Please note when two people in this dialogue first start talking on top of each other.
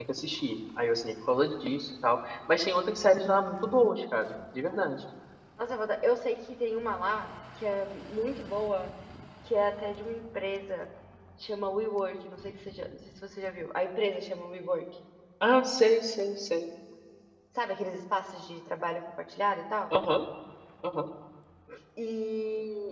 none

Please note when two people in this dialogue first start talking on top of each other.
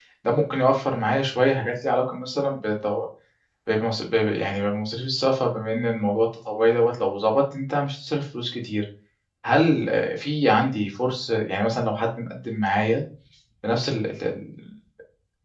none

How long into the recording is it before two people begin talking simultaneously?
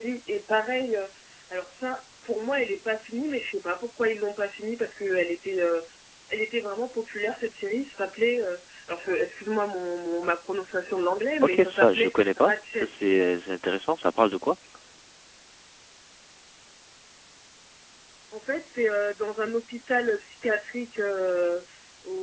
11.4 s

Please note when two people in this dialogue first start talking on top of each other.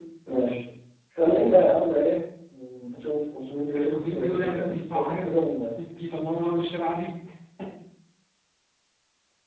3.8 s

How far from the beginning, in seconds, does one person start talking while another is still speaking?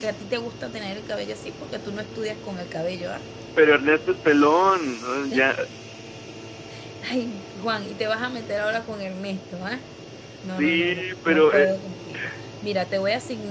10.5 s

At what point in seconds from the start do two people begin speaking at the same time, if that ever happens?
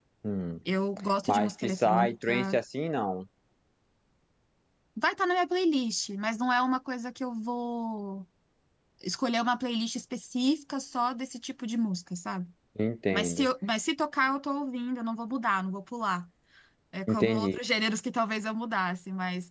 1.3 s

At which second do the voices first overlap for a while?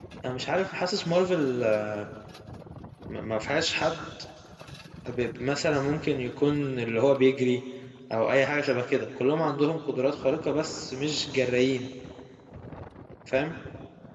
none

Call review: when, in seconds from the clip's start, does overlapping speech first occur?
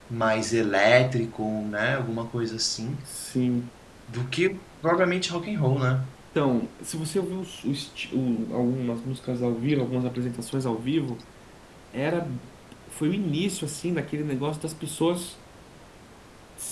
none

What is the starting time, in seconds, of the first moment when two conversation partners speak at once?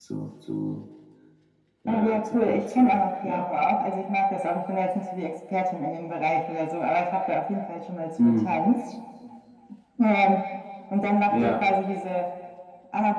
1.9 s

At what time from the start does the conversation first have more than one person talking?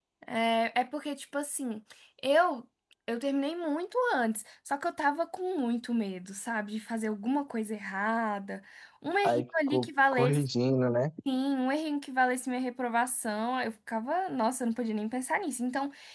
9.2 s

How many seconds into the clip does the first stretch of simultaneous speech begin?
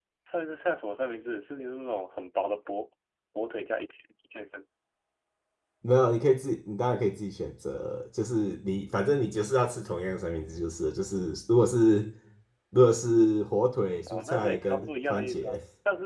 14.1 s

